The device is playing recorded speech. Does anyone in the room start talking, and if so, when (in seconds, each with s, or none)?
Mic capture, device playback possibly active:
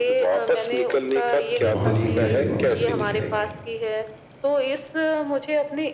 1.5 s